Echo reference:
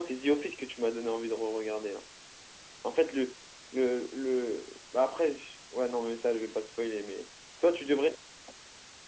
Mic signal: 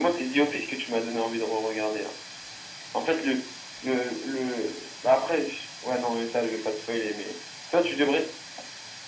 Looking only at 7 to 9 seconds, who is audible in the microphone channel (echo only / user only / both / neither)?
echo only